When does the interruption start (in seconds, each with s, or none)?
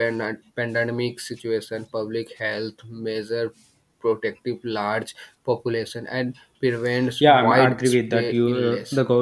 7.2 s